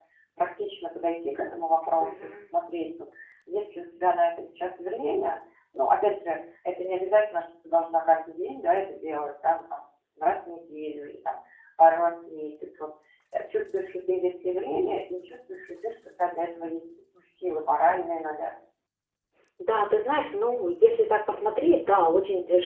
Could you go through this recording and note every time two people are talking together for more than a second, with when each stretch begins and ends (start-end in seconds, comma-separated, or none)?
none